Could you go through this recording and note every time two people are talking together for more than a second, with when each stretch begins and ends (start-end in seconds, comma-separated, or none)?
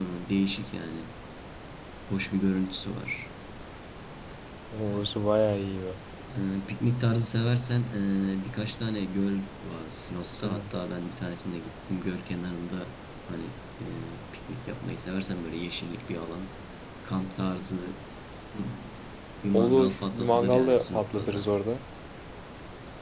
19.5-21.5